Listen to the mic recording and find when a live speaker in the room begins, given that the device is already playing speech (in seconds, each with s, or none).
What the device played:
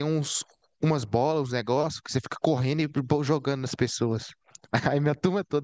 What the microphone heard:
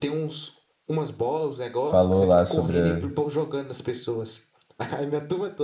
1.8 s